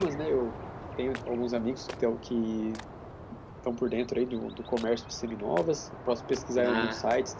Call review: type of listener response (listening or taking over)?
listening